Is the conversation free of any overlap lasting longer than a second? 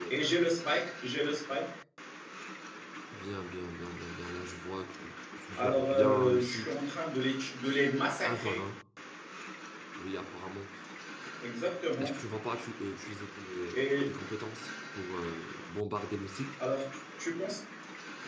No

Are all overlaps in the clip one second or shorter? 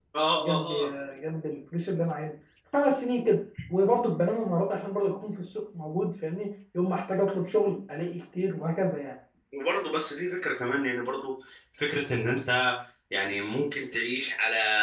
Yes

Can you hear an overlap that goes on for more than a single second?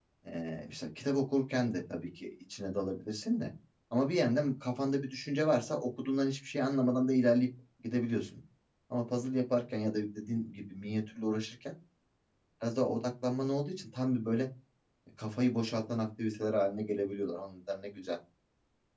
No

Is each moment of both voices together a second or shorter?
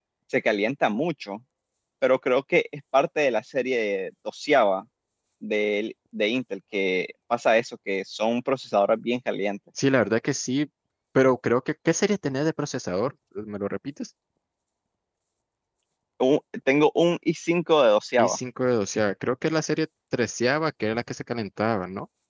Yes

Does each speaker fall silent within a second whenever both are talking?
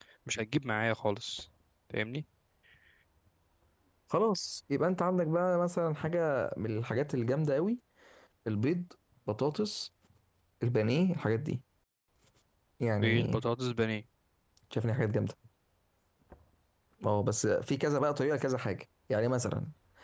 Yes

